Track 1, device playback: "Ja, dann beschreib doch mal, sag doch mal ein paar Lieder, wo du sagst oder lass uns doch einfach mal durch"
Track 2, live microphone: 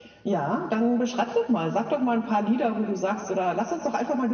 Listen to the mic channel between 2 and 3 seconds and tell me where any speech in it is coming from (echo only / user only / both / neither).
echo only